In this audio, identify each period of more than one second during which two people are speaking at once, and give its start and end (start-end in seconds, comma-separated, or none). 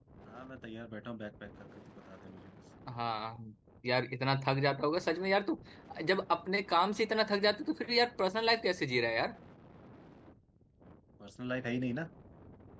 none